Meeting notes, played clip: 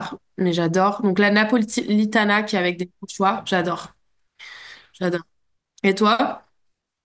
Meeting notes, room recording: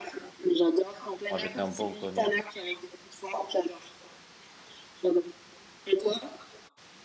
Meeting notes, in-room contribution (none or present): present